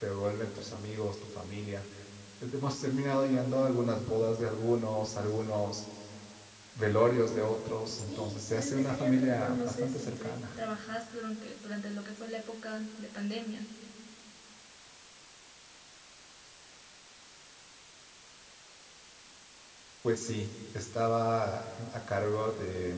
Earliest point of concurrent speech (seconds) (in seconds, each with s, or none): 8.0 s